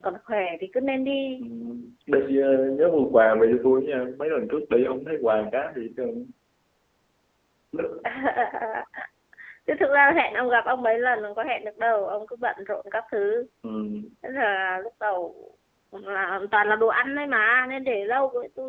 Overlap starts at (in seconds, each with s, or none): none